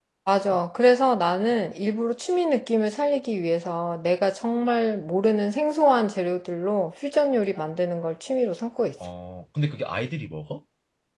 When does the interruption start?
none

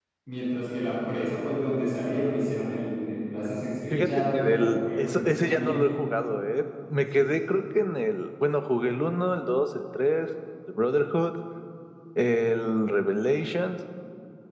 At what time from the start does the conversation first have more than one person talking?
3.9 s

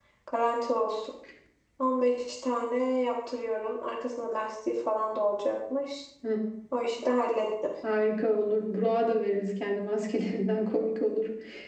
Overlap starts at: none

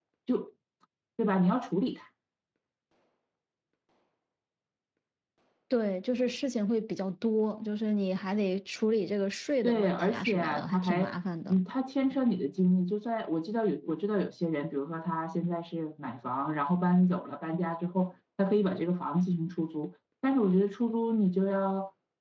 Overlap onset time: 9.6 s

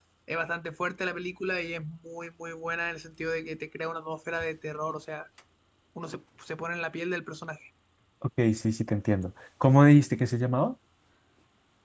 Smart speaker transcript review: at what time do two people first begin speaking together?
none

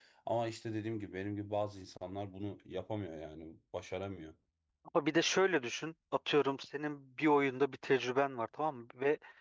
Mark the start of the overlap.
none

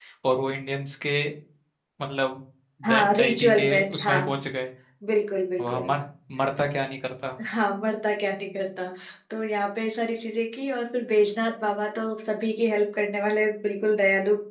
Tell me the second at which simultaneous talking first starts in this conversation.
2.9 s

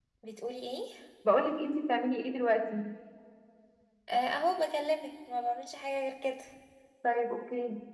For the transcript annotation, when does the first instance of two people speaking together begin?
none

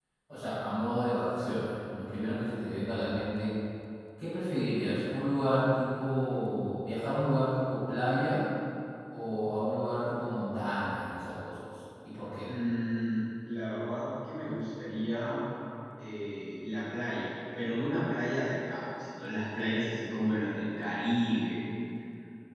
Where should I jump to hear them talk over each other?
none

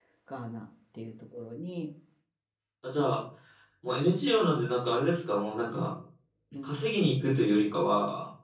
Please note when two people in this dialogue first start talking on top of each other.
none

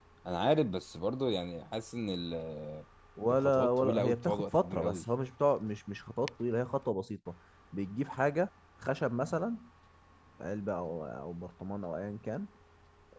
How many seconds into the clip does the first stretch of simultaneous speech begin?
3.3 s

